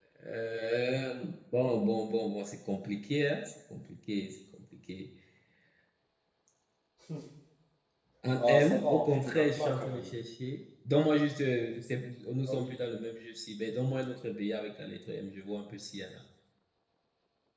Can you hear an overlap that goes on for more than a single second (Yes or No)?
Yes